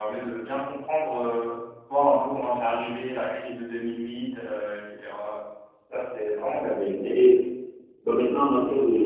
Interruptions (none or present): none